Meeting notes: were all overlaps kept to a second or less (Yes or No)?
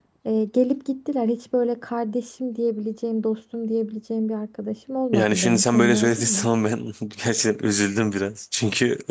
No